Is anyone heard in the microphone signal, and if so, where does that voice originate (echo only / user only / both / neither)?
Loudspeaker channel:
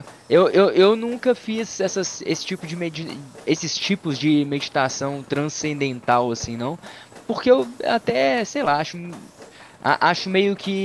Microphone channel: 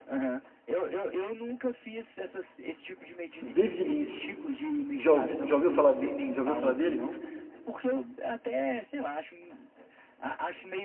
both